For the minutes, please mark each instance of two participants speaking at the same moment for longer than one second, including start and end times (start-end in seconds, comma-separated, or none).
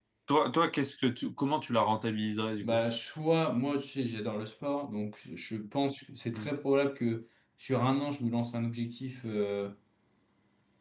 none